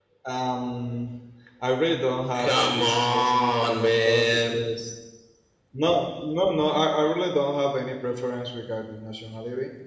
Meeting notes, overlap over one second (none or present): present